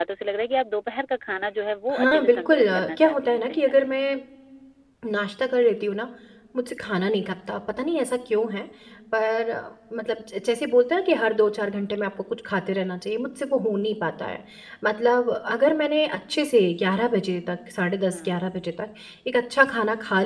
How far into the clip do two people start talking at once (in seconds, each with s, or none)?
1.9 s